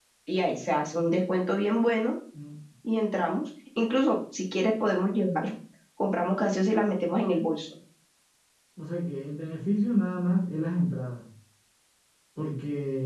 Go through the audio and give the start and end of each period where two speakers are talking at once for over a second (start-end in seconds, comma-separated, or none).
none